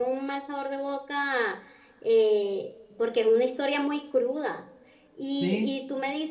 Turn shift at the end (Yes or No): No